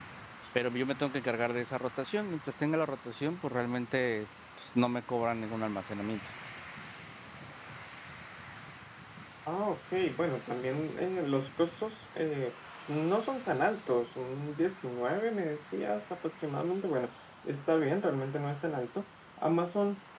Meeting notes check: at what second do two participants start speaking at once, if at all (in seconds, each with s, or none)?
none